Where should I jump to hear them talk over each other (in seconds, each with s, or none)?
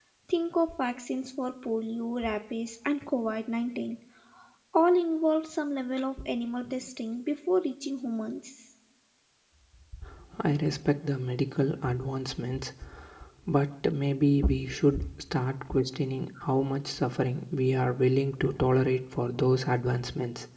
none